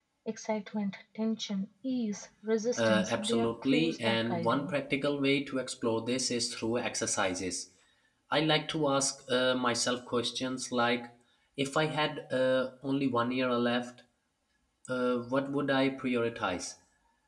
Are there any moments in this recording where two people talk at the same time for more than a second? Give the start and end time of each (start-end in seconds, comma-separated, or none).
2.8-4.7